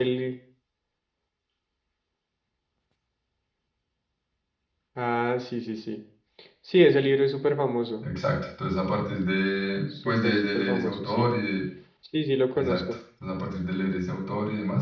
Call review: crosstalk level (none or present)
present